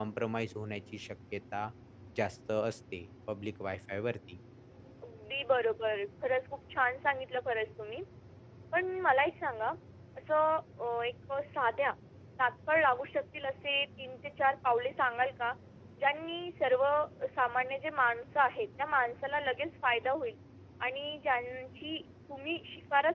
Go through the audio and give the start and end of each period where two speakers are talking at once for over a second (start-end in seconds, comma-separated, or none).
none